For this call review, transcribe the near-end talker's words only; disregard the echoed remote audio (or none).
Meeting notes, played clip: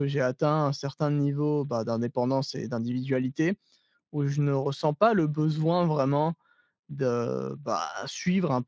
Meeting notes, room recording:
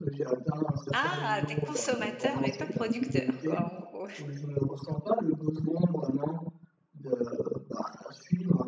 Ah! Tu es consommateur, mais pas producteur, quoi, en gros.